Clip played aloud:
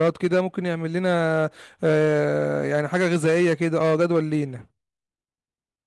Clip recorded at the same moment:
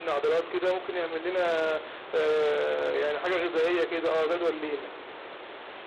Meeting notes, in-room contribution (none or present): none